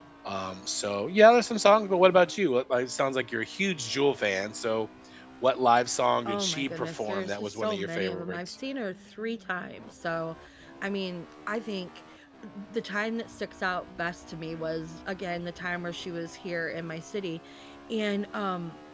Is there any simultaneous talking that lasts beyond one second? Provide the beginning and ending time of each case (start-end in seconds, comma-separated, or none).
6.2-8.6